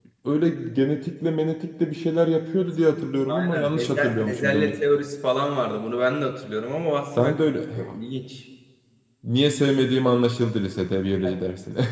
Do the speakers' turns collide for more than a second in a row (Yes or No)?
Yes